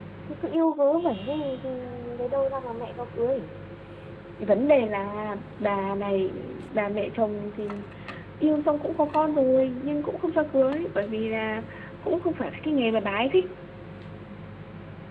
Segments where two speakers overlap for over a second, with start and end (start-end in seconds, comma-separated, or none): none